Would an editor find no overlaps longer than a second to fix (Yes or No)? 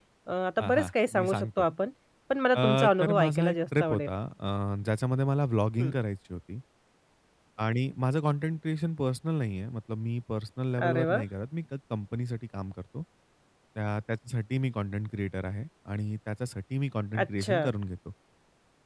No